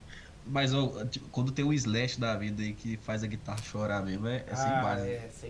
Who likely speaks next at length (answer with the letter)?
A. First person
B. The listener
B